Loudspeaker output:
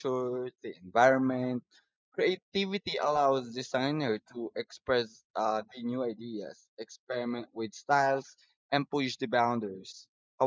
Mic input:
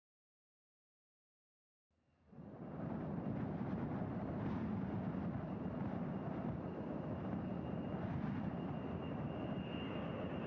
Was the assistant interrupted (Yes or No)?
No